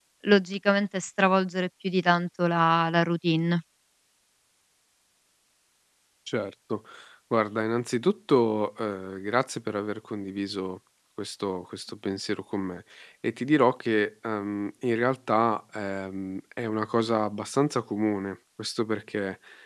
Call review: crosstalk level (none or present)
none